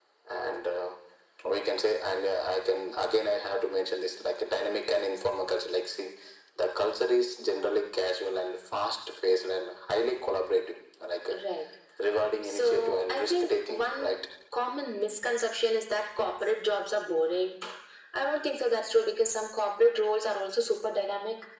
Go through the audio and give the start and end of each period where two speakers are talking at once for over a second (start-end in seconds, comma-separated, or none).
12.4-14.2